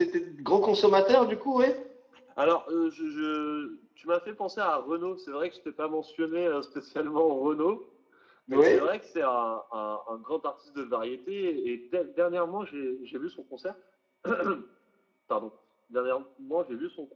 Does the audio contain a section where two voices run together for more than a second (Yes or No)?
No